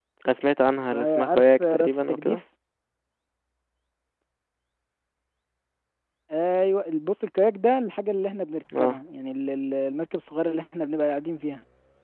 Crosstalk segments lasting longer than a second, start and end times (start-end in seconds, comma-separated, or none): 0.9-2.4